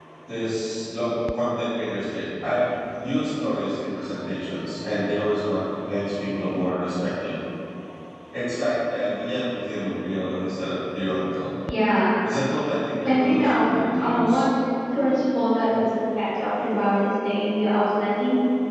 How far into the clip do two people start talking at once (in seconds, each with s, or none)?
13.1 s